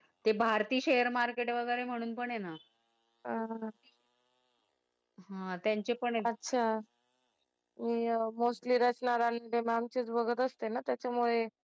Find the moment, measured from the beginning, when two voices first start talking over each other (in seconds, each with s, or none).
none